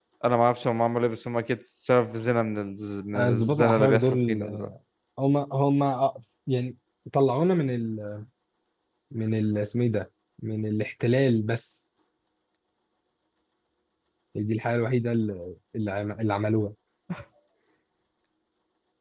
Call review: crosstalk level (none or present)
present